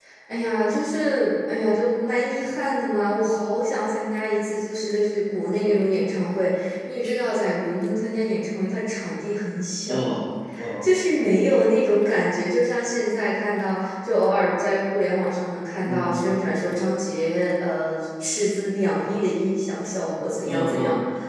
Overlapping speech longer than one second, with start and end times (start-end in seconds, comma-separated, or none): none